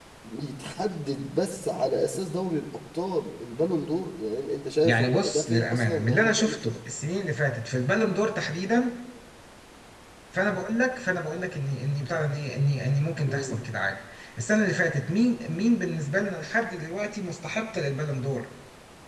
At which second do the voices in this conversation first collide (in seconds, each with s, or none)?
4.8 s